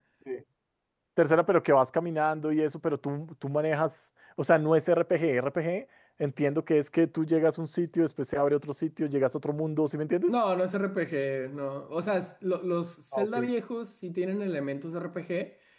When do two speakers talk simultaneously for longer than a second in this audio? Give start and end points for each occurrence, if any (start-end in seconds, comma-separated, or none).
none